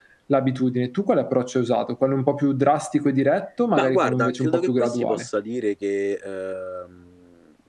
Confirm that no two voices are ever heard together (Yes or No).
No